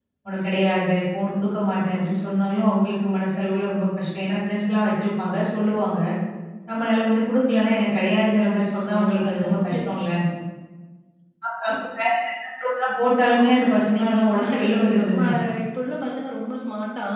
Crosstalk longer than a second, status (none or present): present